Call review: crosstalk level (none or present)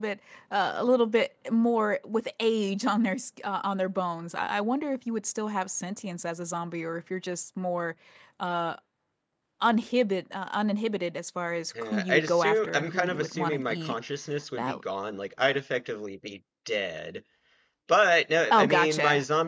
present